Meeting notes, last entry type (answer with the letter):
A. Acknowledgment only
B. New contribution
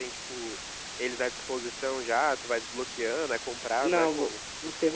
B